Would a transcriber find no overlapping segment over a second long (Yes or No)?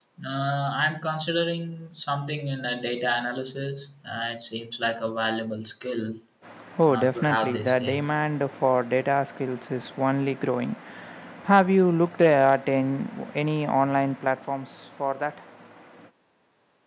No